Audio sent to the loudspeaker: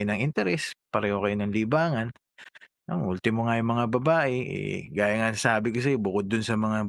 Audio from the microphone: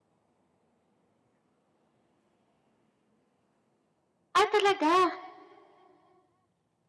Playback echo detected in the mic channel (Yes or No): No